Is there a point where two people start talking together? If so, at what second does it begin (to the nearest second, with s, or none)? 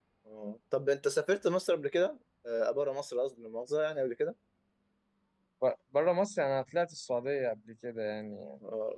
none